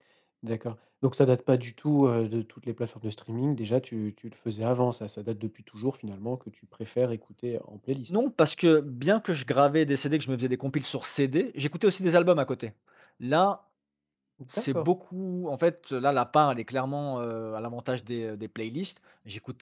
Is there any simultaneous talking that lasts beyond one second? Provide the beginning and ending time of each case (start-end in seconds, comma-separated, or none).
none